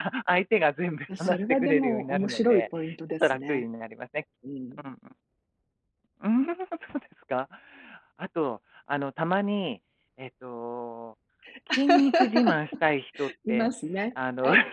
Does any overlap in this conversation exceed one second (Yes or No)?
Yes